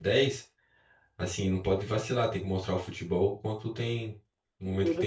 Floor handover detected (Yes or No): Yes